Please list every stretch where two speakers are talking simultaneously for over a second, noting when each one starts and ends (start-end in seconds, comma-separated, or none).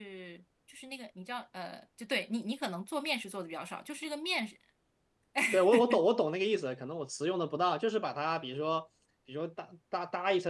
none